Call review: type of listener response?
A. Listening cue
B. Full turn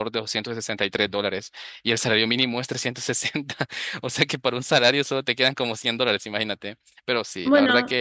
A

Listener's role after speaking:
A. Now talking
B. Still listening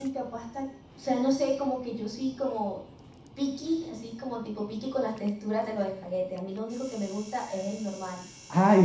A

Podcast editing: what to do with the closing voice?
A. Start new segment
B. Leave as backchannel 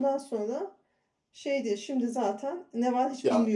A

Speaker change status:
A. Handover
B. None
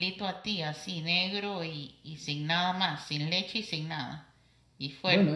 A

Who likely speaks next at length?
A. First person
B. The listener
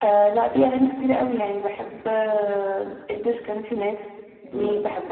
A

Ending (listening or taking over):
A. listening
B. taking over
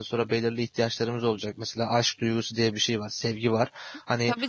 B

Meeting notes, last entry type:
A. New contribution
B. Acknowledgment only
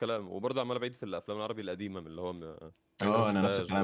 A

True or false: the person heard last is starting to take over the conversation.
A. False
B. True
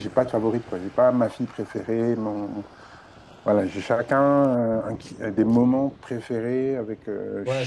B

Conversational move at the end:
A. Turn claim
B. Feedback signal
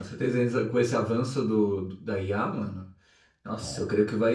B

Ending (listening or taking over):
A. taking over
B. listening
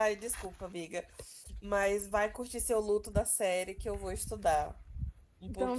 A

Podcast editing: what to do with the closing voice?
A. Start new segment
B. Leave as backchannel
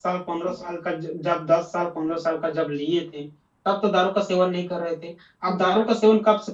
B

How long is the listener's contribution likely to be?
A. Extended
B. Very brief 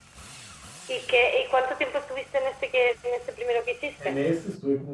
A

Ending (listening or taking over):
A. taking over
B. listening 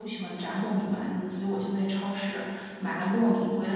B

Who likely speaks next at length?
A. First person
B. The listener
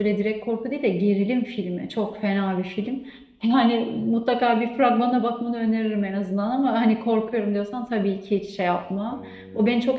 A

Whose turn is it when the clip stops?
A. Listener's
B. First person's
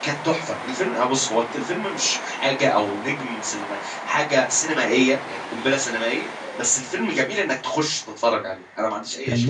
A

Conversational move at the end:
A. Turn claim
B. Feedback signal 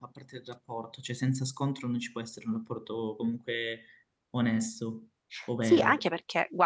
A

